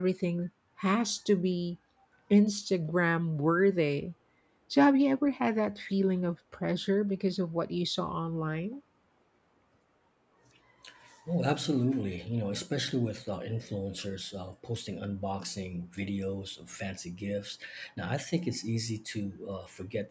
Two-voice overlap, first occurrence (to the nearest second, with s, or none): none